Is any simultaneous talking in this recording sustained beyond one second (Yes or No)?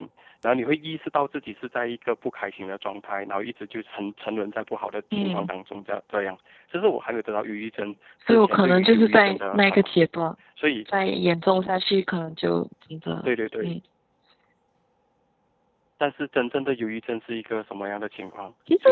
Yes